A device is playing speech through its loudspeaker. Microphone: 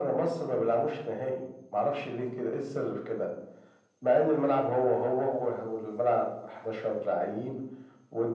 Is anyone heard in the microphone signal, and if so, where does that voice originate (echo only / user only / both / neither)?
echo only